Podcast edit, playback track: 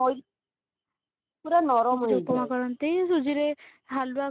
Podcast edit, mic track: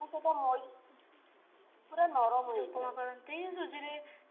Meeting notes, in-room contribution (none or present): none